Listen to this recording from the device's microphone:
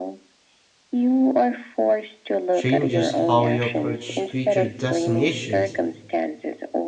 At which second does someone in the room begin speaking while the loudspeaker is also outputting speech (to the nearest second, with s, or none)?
3 s